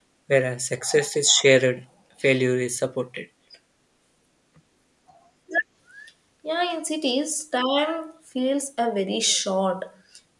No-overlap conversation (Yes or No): Yes